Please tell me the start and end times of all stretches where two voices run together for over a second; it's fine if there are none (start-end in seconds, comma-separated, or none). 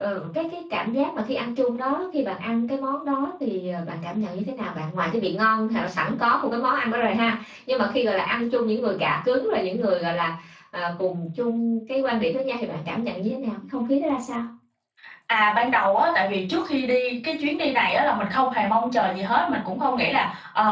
none